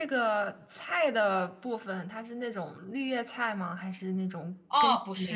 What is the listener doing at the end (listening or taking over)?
taking over